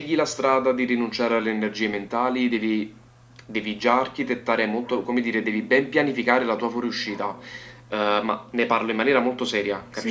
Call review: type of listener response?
taking over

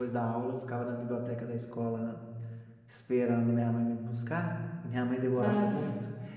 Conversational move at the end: listening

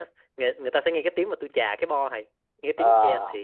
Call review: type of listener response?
listening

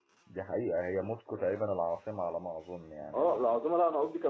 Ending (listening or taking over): taking over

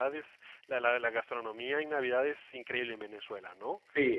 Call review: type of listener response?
taking over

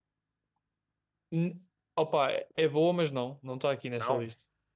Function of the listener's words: listening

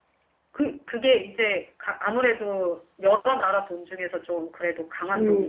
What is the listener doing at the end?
taking over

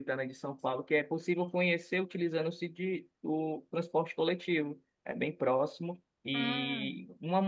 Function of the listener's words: listening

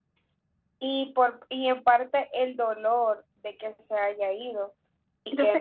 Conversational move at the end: listening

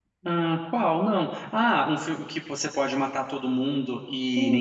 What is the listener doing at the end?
taking over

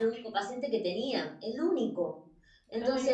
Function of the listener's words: listening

